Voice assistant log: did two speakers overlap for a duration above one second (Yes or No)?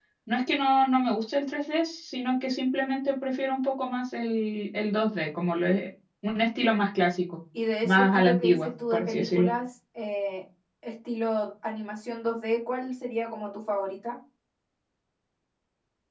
Yes